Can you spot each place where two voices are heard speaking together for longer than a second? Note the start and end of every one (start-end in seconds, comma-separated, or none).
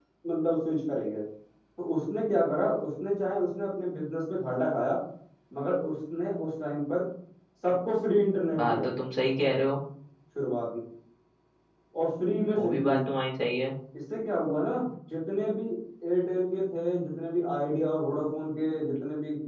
none